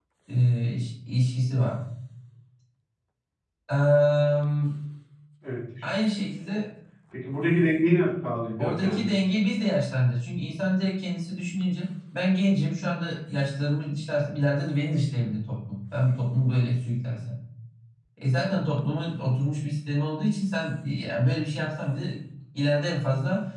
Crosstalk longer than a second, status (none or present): none